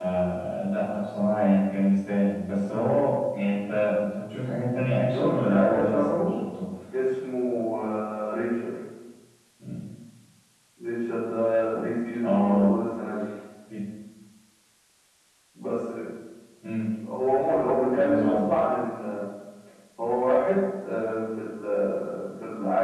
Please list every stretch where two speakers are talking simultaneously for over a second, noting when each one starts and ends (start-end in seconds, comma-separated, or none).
5.0-6.3